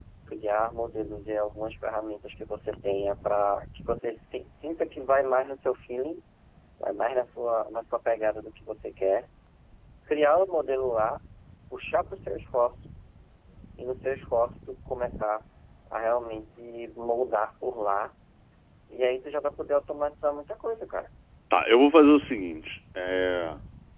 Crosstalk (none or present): none